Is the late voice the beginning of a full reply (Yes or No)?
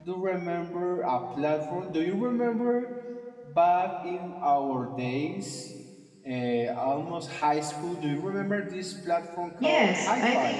Yes